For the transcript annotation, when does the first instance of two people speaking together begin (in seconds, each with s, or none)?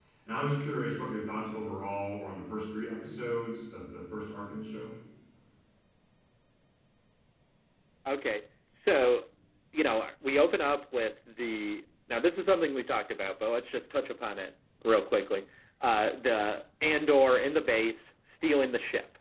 none